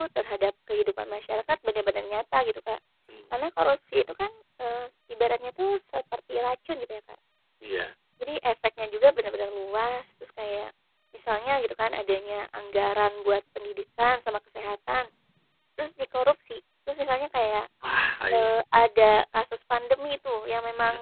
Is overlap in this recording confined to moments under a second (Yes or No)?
Yes